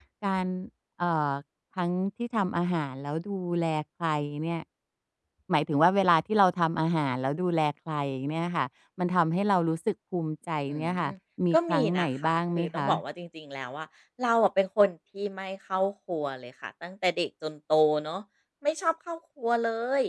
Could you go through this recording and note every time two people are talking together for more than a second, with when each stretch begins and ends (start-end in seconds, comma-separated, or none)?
11.5-12.9